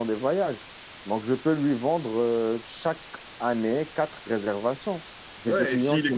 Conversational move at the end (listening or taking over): taking over